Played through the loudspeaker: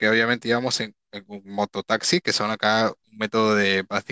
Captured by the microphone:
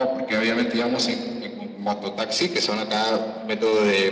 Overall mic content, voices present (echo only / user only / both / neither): echo only